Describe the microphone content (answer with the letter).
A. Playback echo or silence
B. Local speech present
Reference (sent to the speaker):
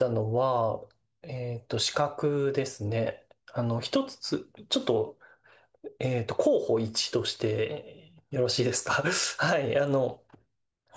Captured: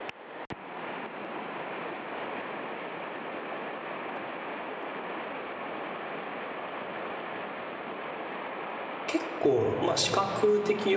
B